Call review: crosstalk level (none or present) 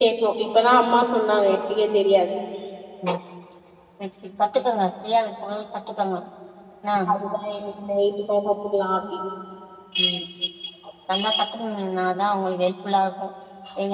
none